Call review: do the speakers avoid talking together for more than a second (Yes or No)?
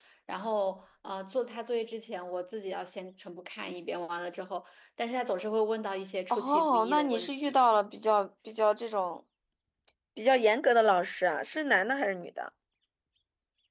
No